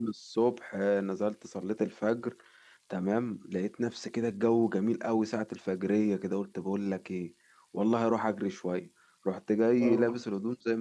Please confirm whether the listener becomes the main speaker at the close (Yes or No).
No